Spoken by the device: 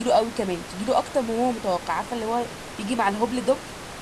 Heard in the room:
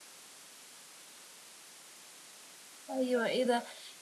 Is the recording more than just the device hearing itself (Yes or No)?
Yes